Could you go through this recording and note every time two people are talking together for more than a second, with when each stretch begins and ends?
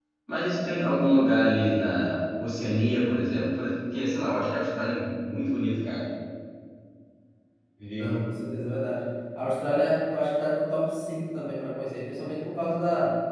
none

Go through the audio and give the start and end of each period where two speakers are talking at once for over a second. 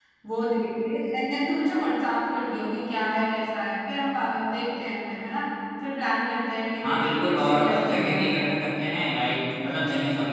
6.8-8.3

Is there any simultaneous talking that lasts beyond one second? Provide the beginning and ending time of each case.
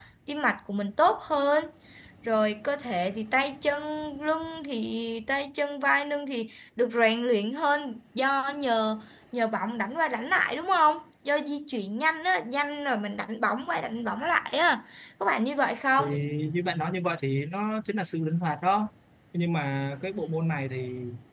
none

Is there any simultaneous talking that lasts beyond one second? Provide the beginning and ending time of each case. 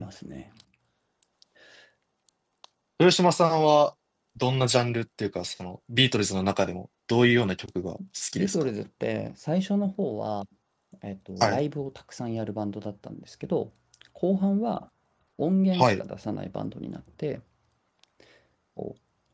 none

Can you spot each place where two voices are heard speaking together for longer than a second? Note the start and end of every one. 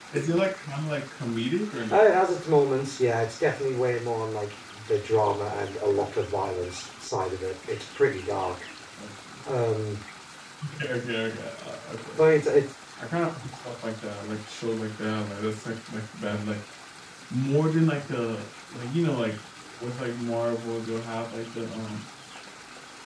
none

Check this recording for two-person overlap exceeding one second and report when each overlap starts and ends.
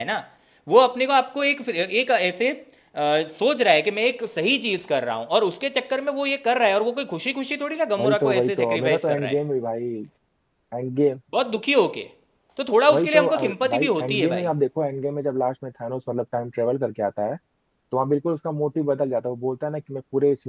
8.0-9.3, 12.9-14.5

